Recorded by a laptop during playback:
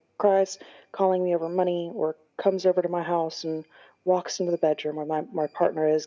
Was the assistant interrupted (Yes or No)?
No